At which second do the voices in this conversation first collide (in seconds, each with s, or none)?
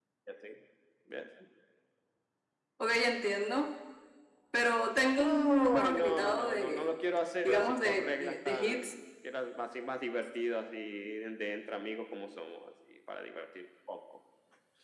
5.1 s